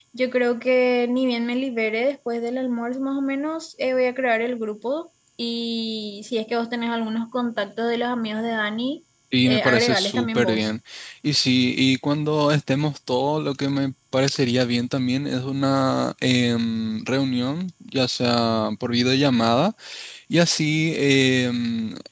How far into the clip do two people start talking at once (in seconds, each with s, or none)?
9.3 s